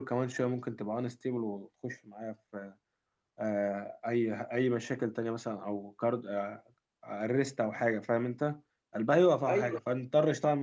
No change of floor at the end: Yes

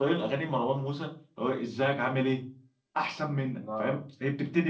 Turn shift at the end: No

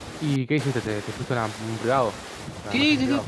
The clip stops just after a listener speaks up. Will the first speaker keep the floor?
No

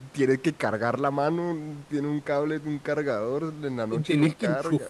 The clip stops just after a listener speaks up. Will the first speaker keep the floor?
No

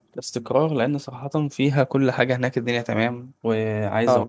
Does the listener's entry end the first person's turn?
No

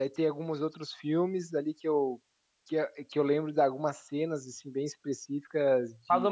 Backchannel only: No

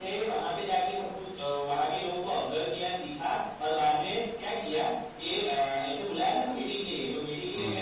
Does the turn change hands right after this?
No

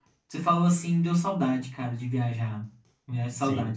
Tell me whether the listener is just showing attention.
No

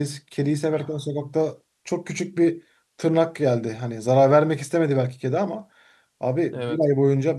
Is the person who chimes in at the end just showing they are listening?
Yes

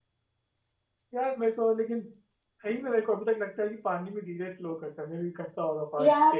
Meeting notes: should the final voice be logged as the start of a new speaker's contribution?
Yes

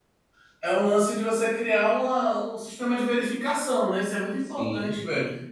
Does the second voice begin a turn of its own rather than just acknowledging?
No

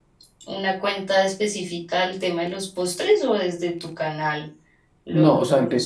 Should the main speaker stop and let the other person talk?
Yes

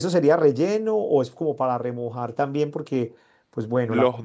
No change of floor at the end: Yes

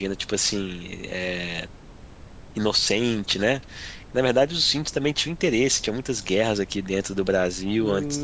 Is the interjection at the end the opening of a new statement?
Yes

